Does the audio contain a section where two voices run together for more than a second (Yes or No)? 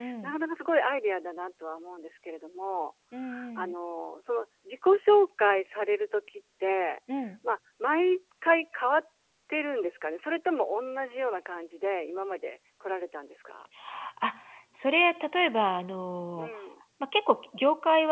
No